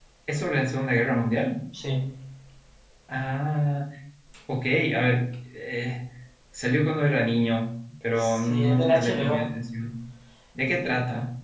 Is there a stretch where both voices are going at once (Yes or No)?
Yes